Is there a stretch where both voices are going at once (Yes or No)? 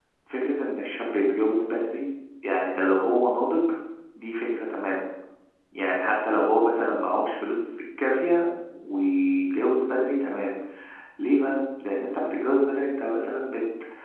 No